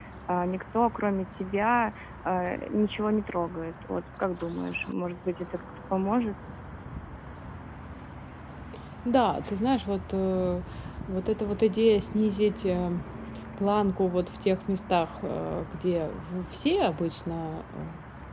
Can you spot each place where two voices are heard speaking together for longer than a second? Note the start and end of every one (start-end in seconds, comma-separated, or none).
none